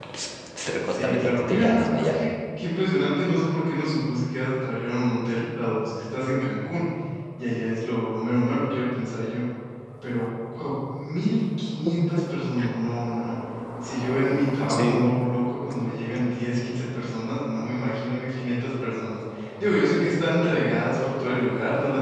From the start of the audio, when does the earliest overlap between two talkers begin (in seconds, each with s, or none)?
0.8 s